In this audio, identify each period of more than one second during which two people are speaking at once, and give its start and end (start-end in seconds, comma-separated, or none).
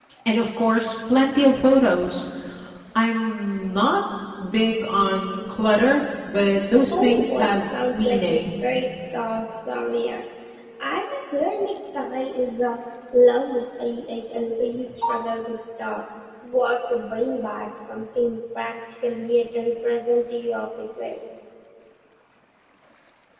6.9-8.4